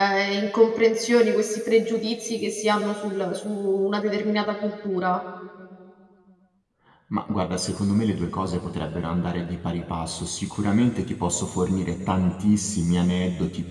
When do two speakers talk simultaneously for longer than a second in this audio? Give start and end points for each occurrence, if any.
none

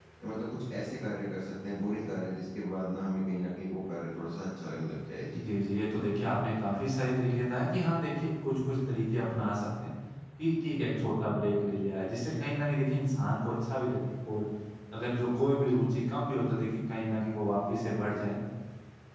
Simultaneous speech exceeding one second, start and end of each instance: none

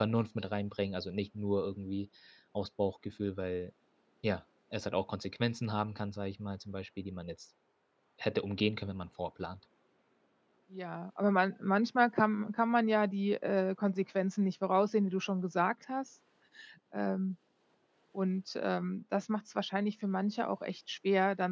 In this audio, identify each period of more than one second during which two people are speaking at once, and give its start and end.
none

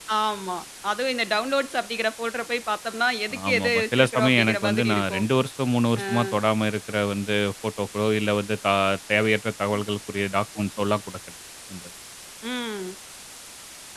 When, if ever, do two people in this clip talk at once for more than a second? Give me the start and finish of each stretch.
3.5-5.2

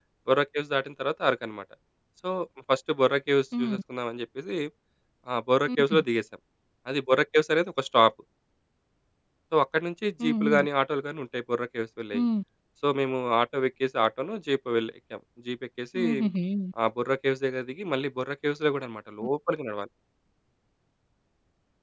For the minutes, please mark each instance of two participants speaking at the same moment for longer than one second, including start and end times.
none

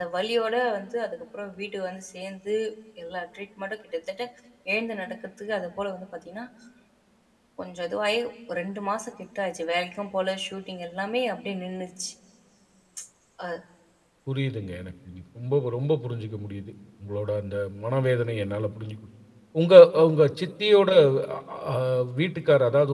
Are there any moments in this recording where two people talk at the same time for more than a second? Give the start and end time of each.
none

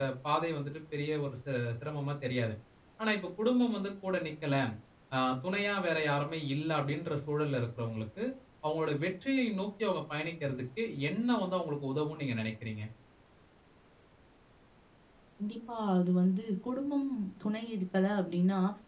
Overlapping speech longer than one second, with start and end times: none

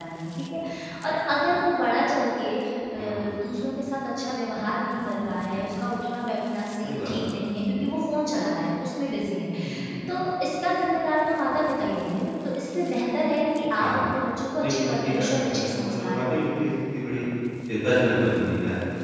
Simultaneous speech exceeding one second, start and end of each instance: 14.6-16.4

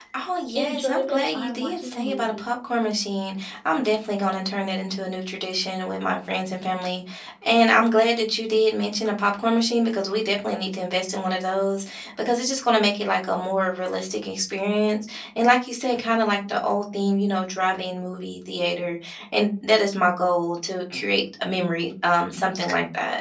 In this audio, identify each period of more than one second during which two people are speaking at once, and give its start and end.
0.6-2.5

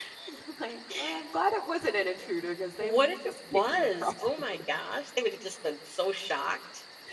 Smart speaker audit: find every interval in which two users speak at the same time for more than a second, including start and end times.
2.8-4.6

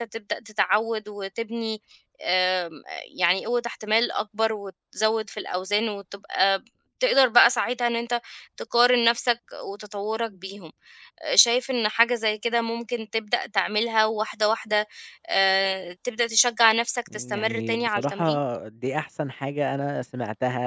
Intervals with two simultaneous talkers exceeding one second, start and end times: 17.1-18.4

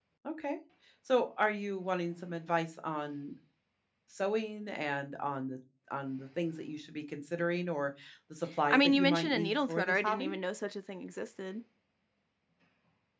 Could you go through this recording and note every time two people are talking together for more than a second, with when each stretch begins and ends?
8.7-10.3

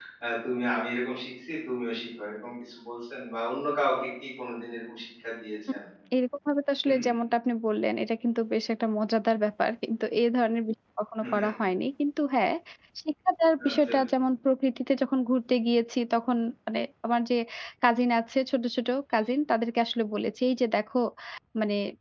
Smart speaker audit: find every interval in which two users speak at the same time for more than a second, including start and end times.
none

